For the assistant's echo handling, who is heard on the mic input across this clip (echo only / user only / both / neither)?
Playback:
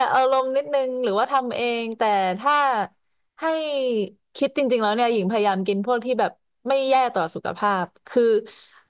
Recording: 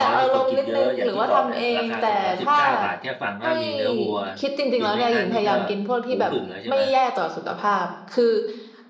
both